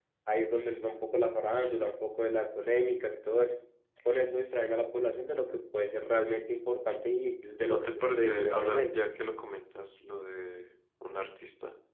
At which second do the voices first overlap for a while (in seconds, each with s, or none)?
7.6 s